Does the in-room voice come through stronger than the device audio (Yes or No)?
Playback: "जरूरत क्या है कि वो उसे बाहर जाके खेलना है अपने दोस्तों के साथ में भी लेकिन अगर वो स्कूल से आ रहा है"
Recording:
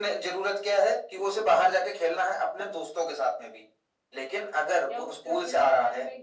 No